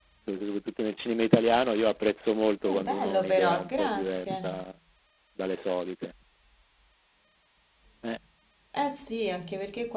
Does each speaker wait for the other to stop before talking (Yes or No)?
No